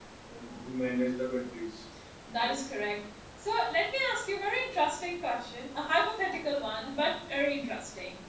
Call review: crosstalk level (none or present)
none